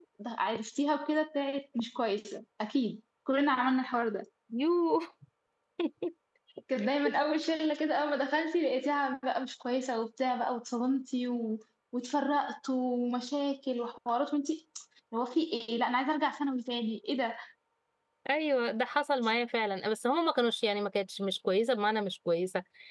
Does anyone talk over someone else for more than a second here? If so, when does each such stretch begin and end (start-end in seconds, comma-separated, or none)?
none